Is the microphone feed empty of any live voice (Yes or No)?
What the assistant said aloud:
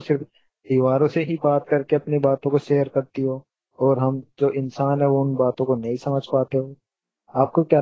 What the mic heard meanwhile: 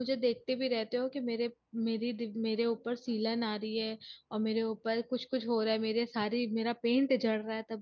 No